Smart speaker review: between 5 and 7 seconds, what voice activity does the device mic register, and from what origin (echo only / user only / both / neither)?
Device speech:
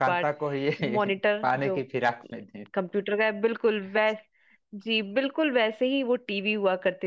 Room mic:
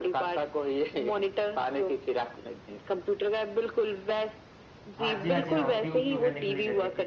both